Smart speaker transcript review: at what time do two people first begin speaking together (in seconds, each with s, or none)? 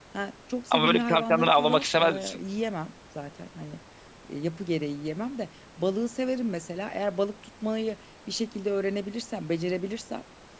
0.7 s